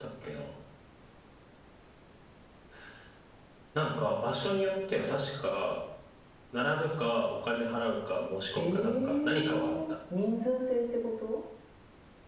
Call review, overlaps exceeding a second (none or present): present